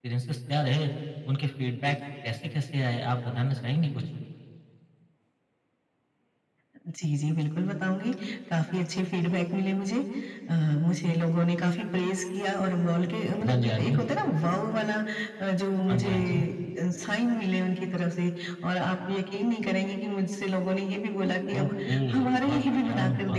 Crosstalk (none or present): present